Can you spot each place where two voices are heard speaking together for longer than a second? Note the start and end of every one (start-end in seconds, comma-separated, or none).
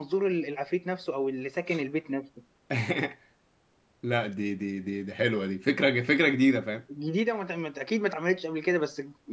none